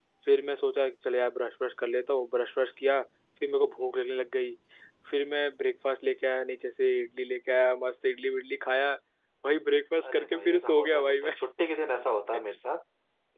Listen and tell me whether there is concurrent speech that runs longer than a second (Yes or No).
Yes